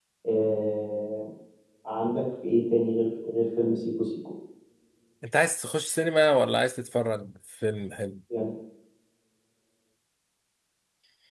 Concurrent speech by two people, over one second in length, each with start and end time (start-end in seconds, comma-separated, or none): none